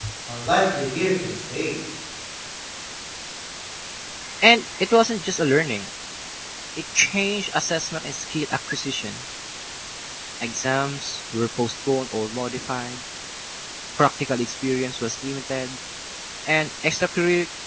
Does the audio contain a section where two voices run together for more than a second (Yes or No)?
No